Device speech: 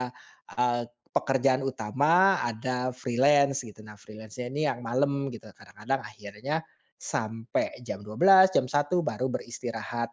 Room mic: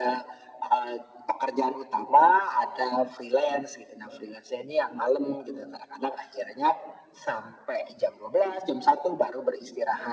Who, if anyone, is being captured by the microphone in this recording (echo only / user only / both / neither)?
echo only